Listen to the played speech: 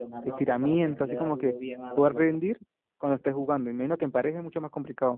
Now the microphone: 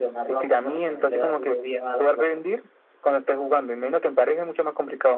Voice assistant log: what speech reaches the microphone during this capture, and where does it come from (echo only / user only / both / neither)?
echo only